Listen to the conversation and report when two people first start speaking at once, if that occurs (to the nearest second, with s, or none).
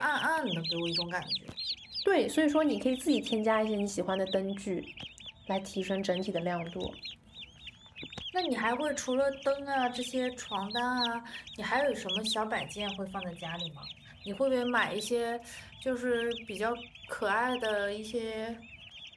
none